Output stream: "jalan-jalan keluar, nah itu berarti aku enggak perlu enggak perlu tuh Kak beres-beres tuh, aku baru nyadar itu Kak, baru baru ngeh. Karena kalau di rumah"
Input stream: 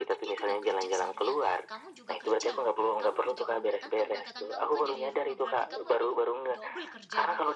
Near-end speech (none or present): present